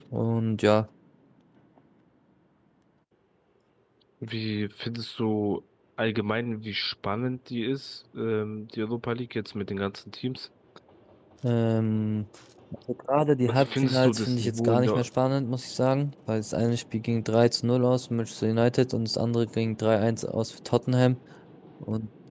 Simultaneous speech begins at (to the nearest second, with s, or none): 13 s